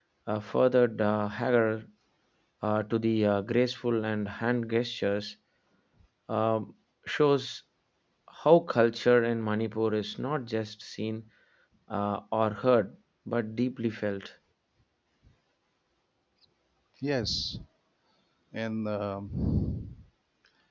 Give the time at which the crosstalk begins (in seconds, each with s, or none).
none